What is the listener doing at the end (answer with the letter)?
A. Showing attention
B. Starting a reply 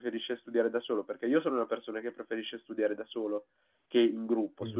A